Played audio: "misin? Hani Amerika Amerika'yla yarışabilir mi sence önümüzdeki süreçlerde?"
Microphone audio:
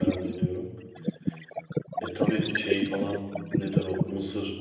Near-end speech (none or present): present